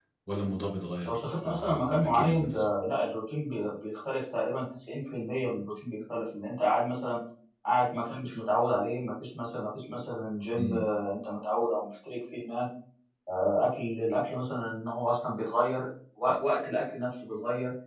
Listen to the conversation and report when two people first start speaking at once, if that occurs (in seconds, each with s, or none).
1.1 s